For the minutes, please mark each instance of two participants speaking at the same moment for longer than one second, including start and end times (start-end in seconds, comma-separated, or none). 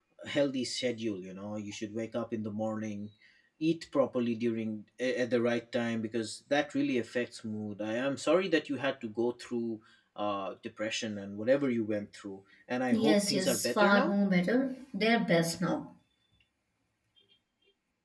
12.9-14.1